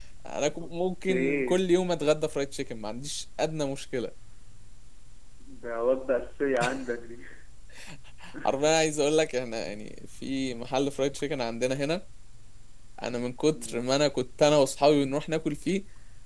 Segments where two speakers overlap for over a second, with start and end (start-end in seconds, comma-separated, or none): none